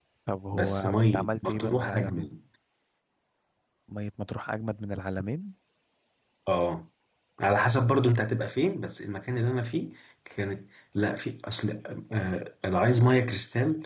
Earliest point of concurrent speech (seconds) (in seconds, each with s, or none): 0.5 s